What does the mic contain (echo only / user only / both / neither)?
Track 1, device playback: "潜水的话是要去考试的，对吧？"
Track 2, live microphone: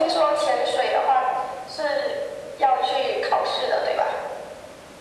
echo only